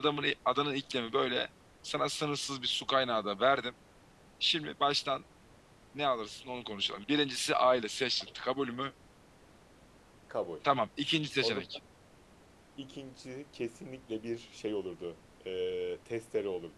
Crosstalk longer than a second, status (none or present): none